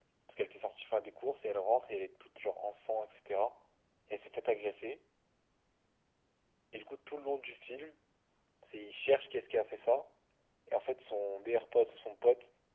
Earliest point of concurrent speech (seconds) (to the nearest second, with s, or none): none